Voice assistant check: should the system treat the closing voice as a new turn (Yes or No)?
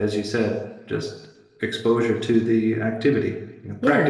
Yes